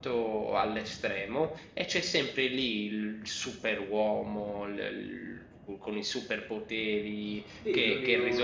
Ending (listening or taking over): taking over